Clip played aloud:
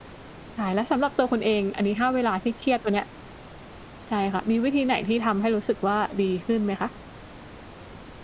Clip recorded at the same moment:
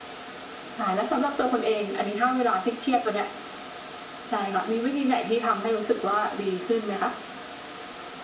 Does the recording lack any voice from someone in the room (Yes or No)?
Yes